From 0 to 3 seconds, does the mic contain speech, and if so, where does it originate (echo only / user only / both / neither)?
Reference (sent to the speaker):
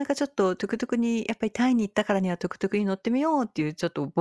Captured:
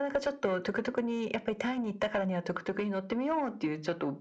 echo only